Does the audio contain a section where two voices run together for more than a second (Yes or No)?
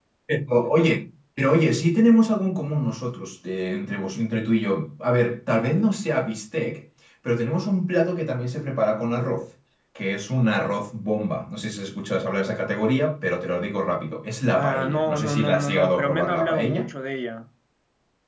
Yes